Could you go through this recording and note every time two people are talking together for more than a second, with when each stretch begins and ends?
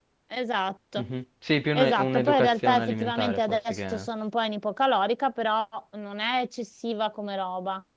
1.8-4.1

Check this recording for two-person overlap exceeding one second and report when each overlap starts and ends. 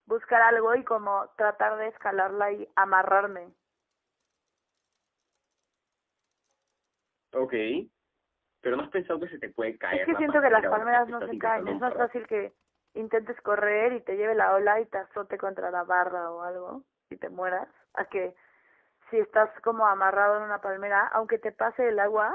9.9-12.1

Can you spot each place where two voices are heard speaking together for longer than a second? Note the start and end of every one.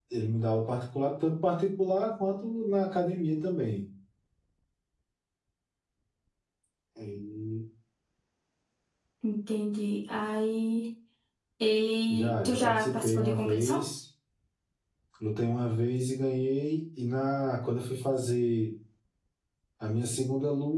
12.1-13.8

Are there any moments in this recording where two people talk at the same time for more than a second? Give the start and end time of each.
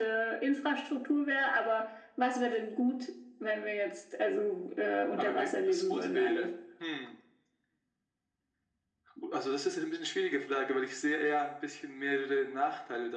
5.2-6.5

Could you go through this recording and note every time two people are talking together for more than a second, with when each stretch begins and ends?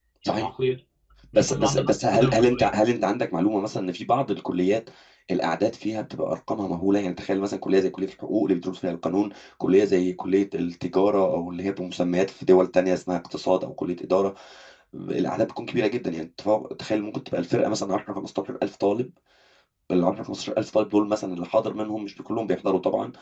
1.4-2.7

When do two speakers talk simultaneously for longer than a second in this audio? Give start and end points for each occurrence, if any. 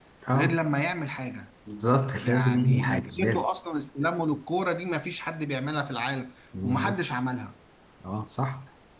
2.2-3.4

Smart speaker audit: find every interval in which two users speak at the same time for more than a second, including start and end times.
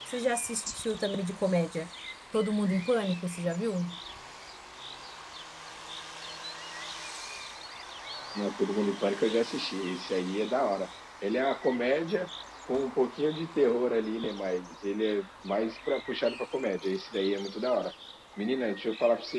none

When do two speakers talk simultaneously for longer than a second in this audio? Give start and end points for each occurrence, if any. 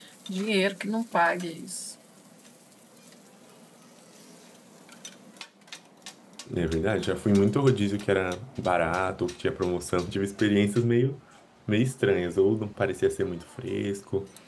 none

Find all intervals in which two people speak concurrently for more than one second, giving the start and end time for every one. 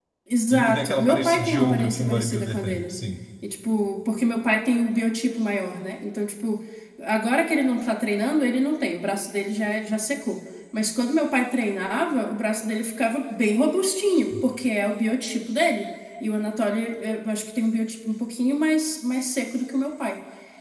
0.5-2.9

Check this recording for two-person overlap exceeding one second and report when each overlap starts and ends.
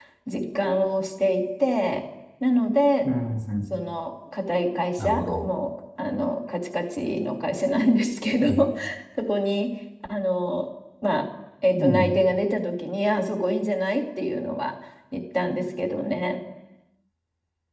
none

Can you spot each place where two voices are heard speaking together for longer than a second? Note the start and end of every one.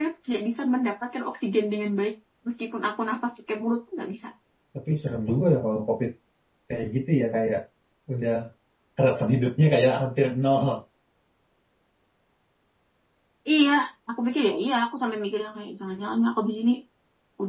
none

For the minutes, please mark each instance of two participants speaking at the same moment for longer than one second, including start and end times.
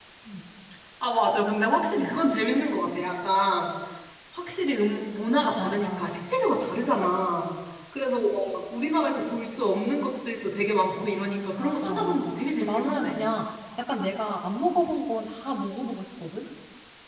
11.6-13.1

